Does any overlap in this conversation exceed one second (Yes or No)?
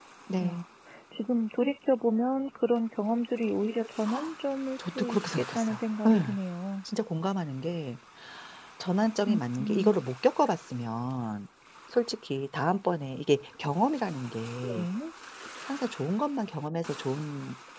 Yes